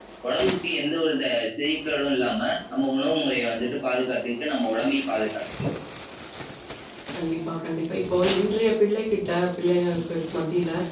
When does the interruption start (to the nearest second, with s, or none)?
none